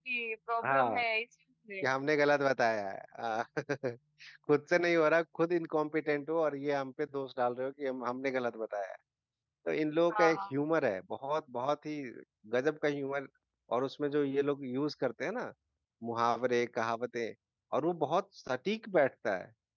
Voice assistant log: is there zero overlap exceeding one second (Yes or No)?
Yes